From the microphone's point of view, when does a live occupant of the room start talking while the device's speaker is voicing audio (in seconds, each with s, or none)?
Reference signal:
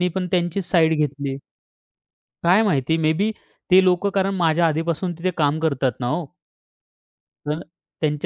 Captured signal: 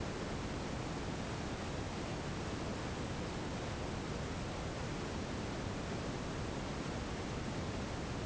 none